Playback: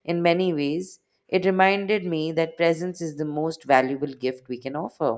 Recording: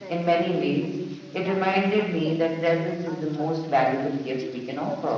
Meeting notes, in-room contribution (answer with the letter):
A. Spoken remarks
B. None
A